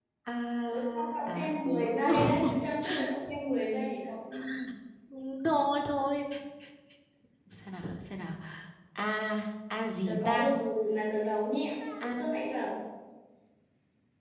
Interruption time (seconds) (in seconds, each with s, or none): 0.6 s